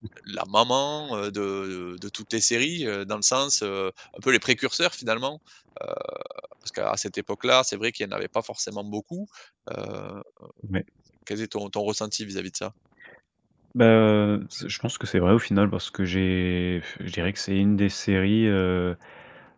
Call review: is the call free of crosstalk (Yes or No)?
Yes